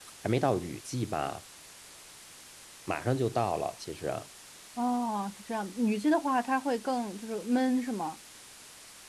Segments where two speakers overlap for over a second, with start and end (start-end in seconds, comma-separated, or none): none